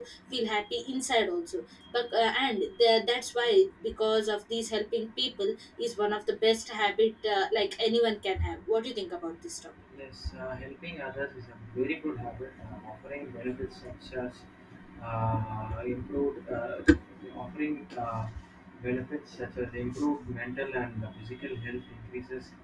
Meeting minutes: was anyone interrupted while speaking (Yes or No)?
No